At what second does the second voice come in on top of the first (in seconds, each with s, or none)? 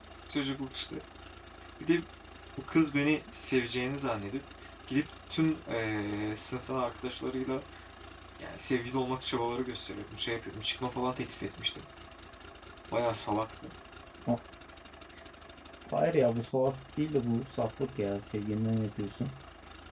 none